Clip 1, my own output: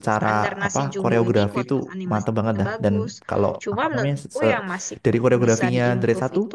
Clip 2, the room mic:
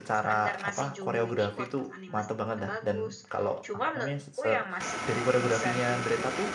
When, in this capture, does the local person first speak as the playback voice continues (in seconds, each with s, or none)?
none